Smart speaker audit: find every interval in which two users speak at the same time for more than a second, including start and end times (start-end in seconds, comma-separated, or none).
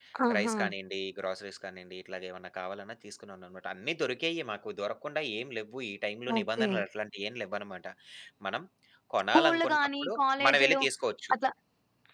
9.3-10.8